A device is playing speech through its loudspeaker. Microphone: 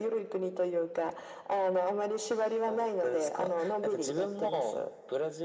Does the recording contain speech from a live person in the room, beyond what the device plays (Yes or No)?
No